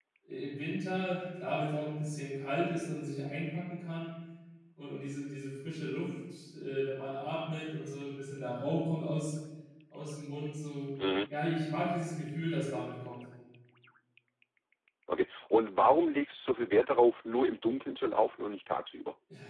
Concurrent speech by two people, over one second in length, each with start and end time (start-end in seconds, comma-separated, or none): none